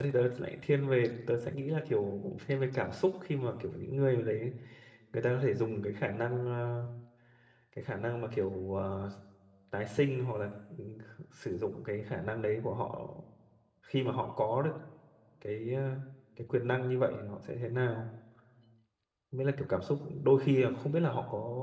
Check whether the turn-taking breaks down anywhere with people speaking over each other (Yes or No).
No